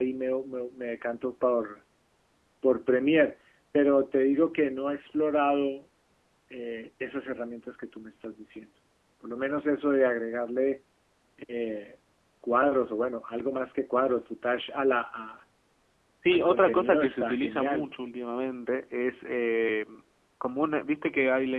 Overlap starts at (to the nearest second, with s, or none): 16 s